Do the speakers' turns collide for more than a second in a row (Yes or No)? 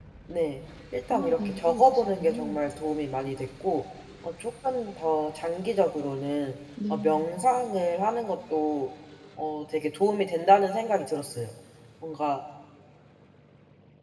Yes